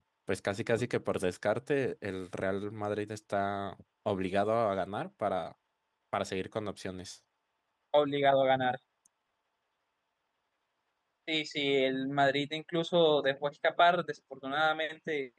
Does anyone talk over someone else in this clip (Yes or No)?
No